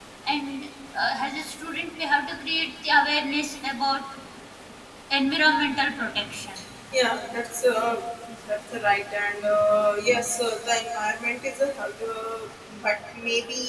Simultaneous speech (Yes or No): No